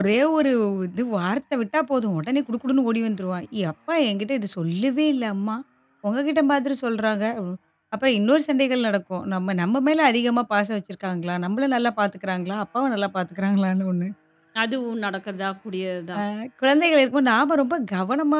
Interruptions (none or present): none